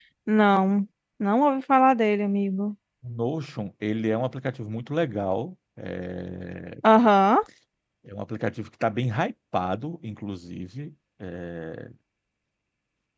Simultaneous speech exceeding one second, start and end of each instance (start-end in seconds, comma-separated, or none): none